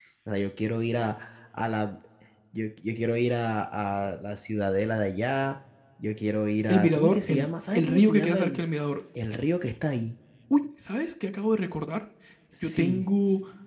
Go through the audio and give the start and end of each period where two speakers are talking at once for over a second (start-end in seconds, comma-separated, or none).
6.7-8.7